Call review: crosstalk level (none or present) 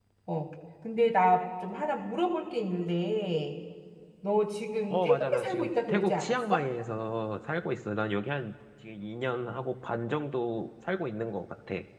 present